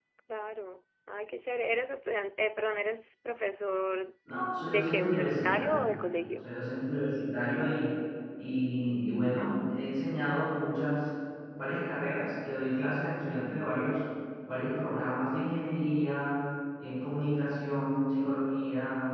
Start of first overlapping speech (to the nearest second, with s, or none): 5 s